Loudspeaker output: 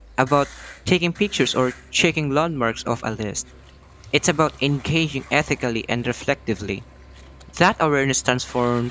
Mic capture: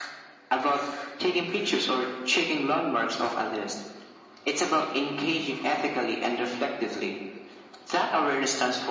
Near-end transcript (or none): none